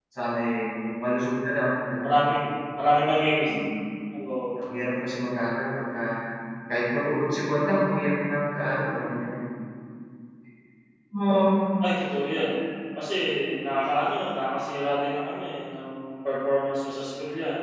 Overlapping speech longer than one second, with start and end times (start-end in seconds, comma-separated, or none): none